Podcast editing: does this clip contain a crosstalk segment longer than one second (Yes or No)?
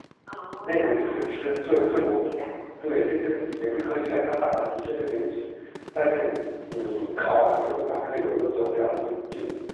Yes